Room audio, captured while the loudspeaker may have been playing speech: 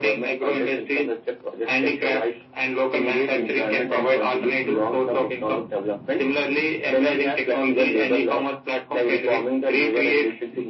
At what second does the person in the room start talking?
none

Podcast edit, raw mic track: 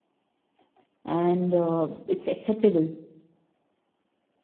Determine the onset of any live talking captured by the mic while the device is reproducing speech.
1 s

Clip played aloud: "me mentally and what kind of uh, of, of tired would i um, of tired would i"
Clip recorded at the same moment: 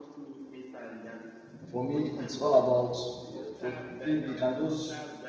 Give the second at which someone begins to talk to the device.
2 s

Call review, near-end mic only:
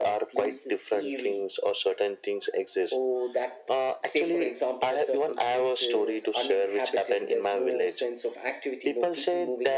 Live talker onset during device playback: none

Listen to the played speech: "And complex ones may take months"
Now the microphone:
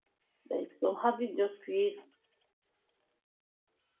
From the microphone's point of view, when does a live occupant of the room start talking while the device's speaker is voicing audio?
1 s

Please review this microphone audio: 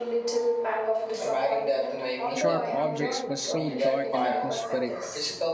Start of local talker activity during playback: 2 s

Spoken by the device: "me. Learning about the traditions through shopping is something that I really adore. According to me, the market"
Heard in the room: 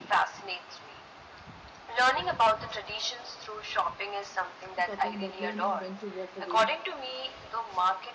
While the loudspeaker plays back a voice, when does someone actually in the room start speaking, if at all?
5 s

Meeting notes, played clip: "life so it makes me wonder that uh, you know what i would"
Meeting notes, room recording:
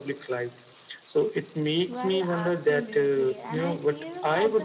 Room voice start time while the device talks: 2 s

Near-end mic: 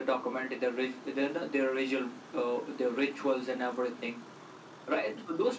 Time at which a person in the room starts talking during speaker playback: none

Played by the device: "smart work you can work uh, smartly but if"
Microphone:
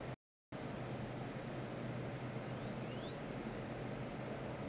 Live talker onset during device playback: none

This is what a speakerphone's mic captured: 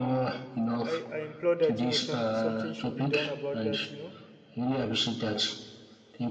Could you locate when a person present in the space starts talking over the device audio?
1 s

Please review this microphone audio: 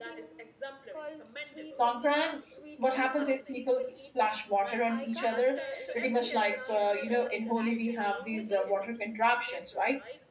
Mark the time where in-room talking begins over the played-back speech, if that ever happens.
2 s

